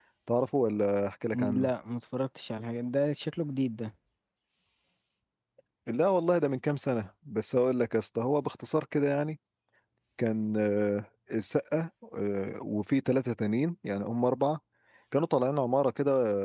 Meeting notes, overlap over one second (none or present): none